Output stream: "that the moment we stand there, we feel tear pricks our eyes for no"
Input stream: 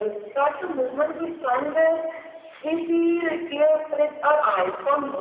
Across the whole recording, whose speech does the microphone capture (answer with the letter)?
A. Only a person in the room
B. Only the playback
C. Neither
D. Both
B